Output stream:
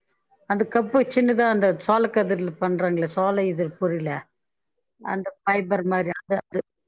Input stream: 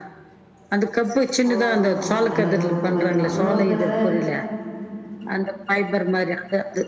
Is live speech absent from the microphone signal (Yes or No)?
No